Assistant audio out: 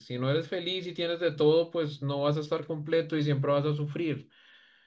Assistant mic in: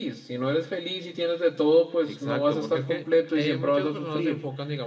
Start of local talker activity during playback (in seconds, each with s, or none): 2.0 s